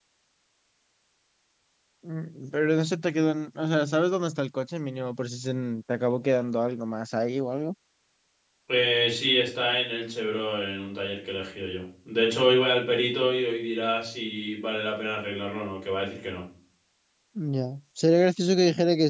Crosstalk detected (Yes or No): No